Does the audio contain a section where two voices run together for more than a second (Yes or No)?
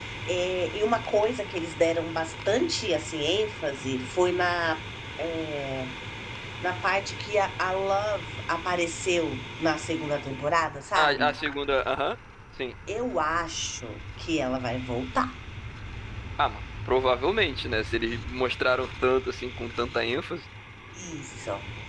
No